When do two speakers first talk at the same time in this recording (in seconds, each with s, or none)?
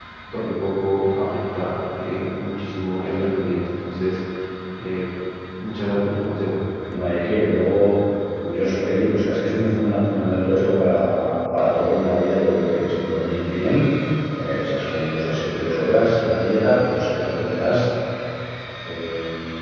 none